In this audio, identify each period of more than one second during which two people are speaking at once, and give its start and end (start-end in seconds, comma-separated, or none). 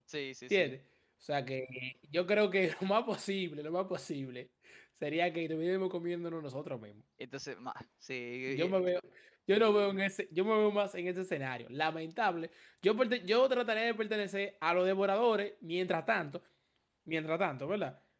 none